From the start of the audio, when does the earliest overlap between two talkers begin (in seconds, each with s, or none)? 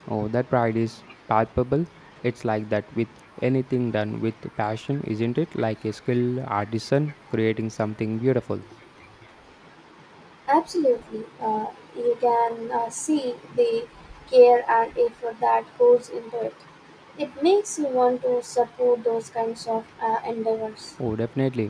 none